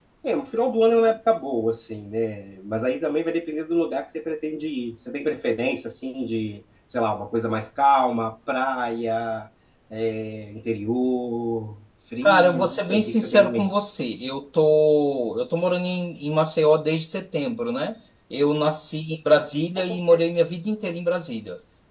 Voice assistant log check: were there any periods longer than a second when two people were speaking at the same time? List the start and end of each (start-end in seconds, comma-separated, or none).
12.2-13.8